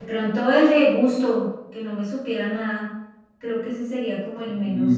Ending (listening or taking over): taking over